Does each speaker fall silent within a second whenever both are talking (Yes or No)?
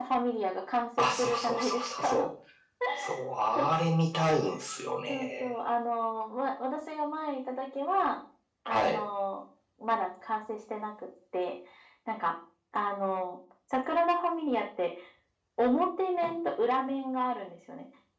No